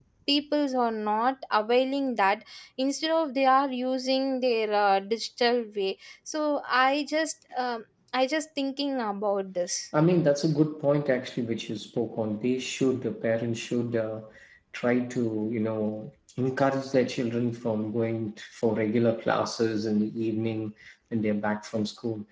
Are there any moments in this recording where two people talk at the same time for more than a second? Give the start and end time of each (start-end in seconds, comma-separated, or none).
none